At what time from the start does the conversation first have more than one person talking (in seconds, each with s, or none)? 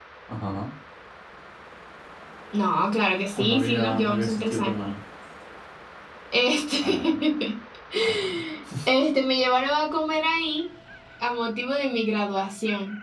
3.4 s